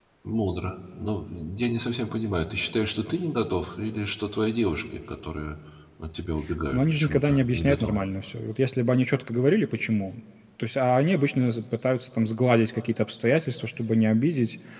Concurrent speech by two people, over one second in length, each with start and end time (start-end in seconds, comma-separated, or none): 6.7-8.0